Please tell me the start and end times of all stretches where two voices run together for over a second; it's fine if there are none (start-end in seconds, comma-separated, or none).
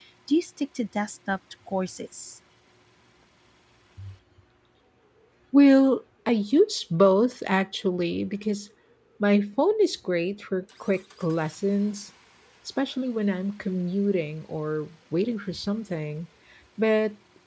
none